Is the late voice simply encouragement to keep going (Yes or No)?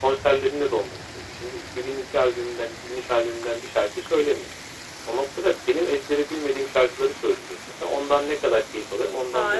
No